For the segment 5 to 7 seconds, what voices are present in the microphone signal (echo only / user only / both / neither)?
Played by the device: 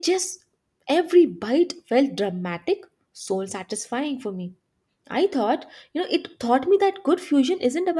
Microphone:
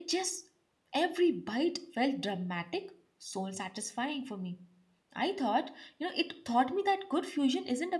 echo only